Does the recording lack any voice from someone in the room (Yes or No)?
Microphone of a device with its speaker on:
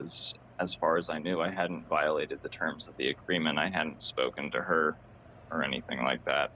No